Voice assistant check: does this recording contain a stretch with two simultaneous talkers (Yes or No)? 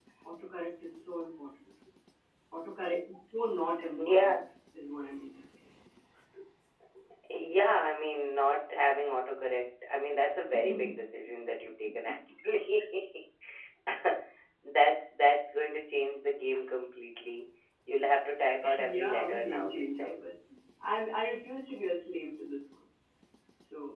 Yes